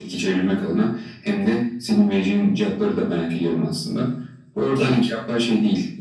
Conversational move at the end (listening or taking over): listening